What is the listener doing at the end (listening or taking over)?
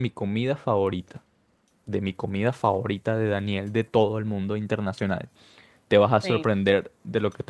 listening